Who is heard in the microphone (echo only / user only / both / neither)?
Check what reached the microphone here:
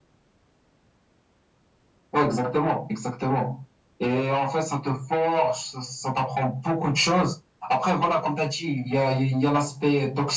echo only